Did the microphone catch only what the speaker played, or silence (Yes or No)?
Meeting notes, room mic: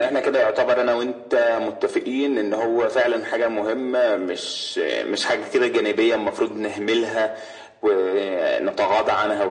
Yes